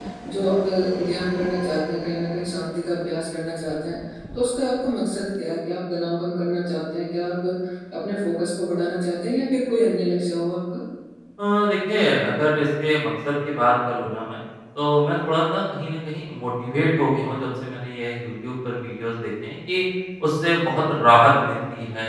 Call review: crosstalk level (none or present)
none